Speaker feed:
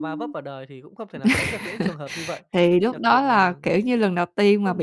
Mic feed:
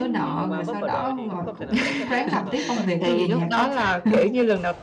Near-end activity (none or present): present